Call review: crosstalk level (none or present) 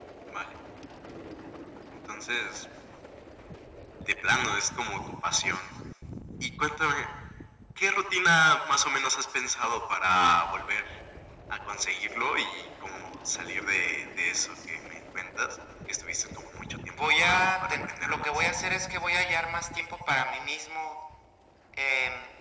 present